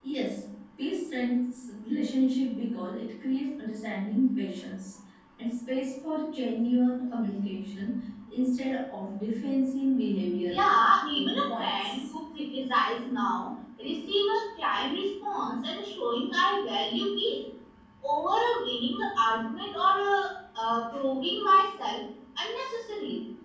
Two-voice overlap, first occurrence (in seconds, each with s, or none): 10.5 s